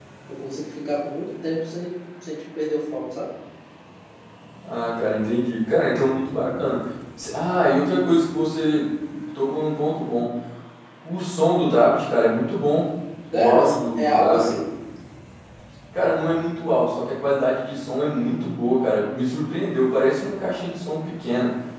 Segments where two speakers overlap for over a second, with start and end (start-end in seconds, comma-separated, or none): 13.3-14.5